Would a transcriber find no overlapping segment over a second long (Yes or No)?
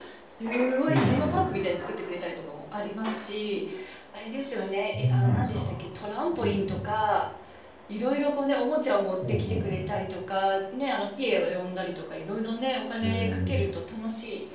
No